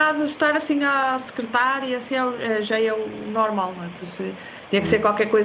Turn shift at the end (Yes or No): No